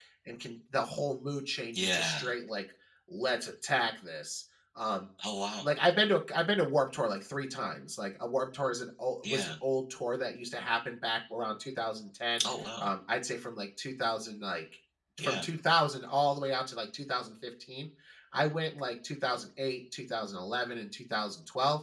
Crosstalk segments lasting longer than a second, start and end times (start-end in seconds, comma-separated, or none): none